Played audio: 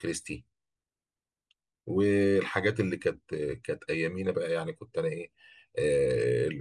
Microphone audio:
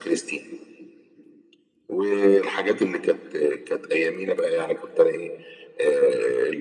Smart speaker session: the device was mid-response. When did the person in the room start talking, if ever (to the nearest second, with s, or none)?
none